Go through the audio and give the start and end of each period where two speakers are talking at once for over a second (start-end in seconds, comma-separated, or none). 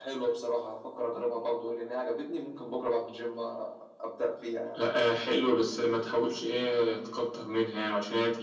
none